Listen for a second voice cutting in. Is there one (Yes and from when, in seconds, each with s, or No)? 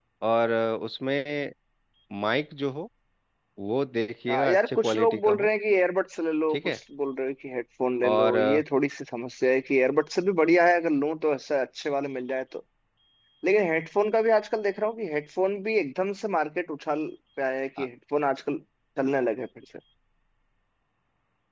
Yes, from 4.3 s